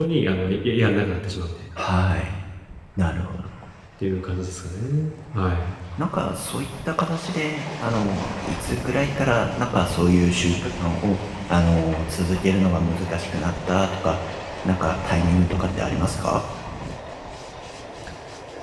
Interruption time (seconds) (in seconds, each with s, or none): none